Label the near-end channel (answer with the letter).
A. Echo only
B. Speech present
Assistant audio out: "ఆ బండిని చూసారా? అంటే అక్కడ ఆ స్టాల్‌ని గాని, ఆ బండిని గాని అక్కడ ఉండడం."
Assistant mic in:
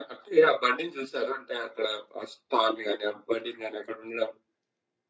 A